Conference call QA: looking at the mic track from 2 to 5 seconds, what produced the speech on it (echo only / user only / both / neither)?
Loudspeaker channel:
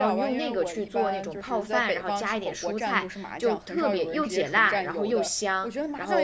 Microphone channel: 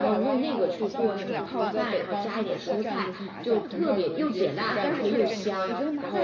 both